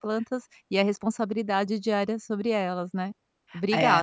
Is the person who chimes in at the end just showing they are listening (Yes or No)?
No